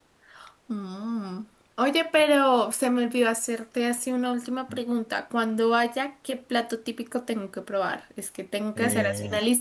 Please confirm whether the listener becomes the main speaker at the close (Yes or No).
No